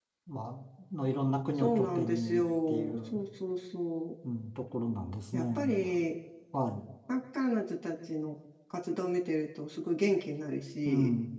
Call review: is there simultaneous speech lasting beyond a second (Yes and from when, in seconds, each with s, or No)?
Yes, from 1.6 s